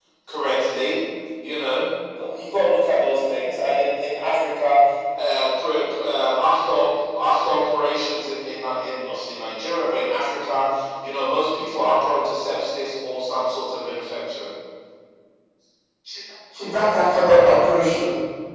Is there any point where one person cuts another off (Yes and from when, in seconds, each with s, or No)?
No